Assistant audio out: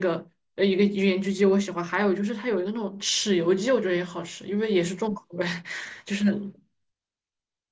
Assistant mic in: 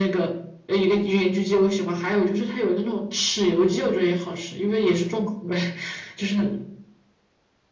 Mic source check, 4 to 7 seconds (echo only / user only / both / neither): echo only